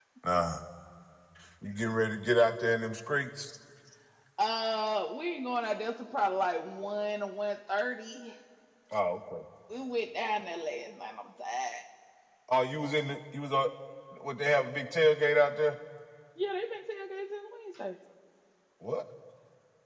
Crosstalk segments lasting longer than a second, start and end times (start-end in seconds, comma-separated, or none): none